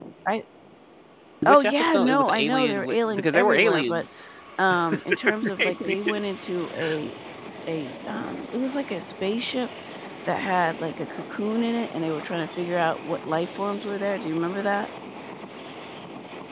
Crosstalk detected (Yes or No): Yes